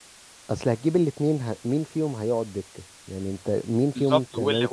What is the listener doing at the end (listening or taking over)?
taking over